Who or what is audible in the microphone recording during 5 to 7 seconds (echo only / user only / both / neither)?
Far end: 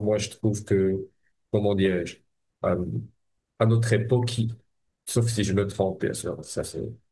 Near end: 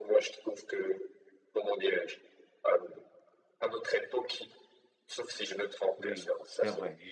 both